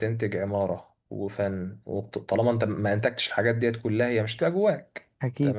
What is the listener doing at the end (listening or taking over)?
listening